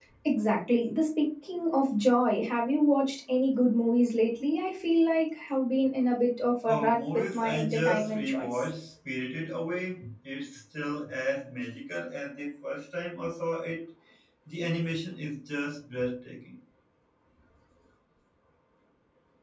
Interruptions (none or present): present